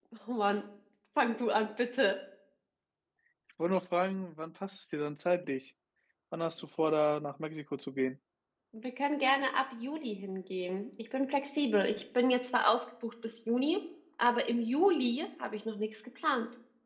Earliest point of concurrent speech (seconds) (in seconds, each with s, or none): none